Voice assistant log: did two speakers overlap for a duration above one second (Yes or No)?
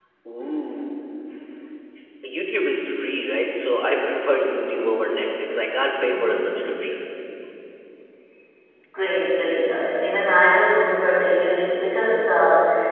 No